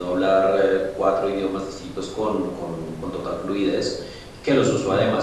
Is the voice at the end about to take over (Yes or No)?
No